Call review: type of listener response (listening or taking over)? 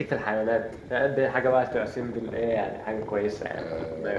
taking over